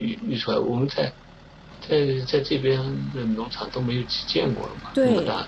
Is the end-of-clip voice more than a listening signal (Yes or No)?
Yes